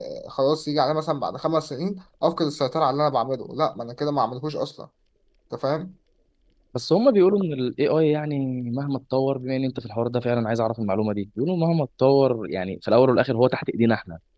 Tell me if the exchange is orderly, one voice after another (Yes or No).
Yes